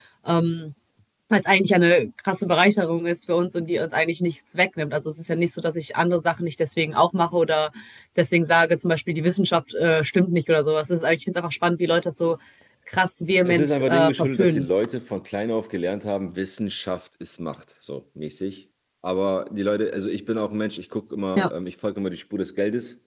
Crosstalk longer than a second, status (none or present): present